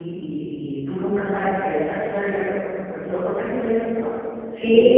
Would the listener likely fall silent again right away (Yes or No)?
No